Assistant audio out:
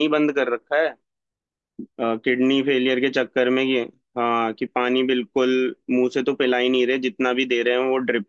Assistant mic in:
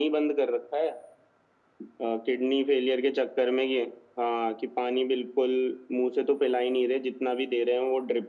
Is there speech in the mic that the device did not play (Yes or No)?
No